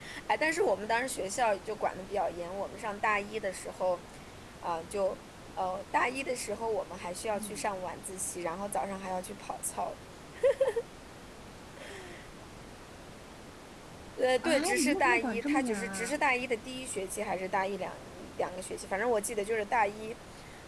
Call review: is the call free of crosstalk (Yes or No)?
No